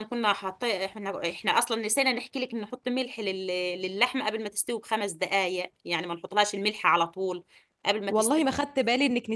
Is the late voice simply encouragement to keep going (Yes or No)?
No